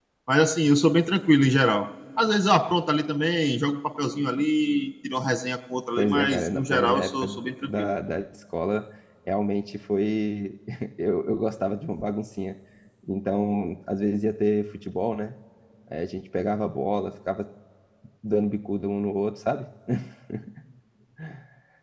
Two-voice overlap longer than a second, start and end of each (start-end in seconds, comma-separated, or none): 6.0-7.9